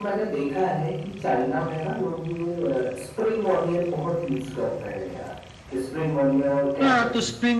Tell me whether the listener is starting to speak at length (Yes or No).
Yes